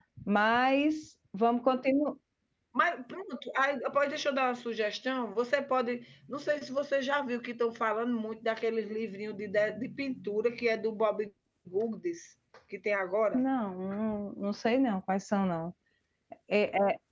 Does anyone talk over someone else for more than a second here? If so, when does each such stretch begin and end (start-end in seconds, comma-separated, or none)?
none